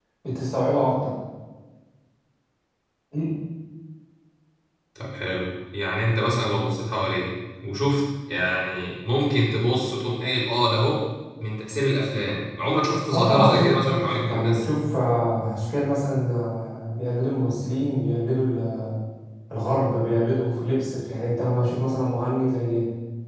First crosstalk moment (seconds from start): 13.1 s

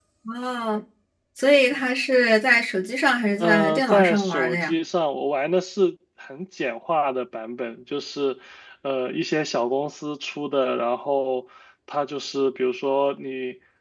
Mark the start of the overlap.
3.4 s

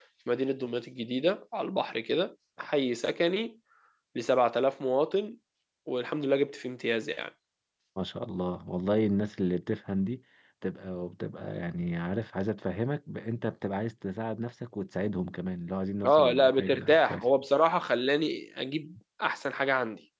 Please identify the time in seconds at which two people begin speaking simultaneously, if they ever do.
16.0 s

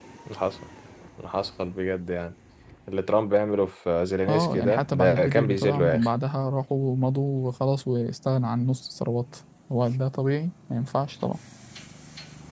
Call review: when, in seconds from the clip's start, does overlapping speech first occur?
4.3 s

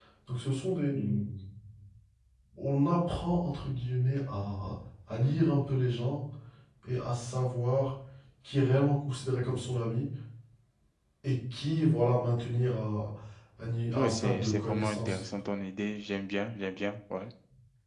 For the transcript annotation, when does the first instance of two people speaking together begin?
13.9 s

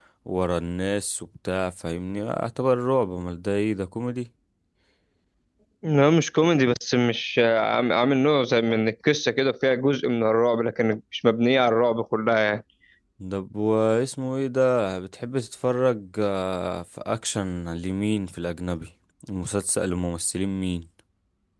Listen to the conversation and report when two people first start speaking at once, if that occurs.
none

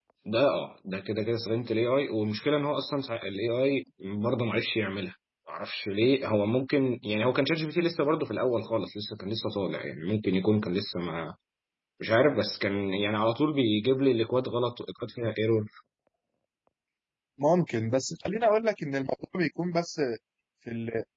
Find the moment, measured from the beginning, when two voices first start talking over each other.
none

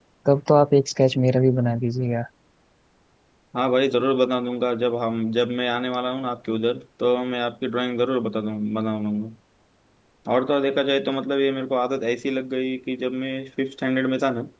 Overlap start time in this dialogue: none

